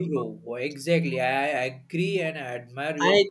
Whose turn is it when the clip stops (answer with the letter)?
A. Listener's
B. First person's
A